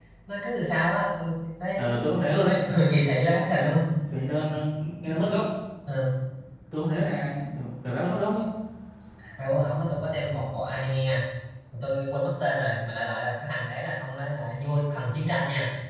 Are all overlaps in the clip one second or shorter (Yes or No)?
Yes